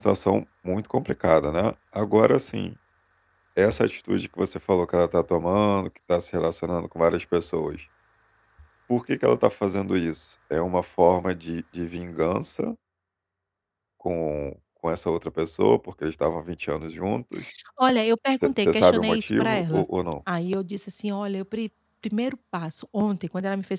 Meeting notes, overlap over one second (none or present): present